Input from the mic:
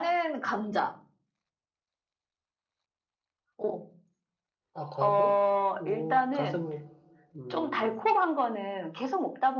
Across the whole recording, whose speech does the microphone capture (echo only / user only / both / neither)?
both